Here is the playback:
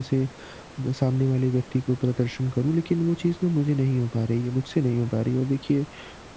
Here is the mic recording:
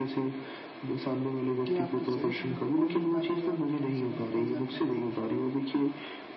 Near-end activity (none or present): present